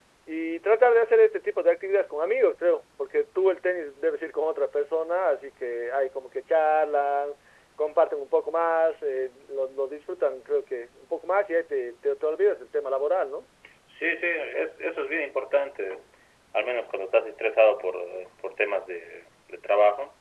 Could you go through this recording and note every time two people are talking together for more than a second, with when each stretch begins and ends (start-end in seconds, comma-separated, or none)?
none